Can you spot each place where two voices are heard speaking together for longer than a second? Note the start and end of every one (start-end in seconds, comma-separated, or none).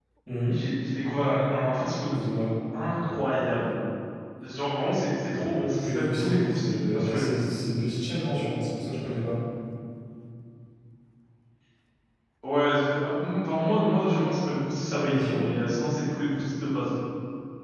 5.7-7.3